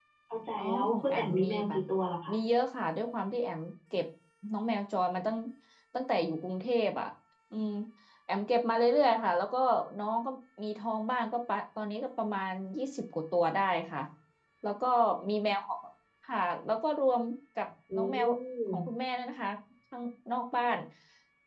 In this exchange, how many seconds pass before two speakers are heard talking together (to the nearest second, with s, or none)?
1 s